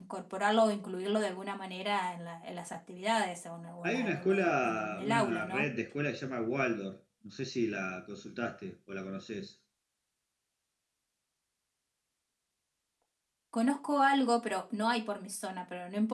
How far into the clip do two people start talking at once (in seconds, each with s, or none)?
3.8 s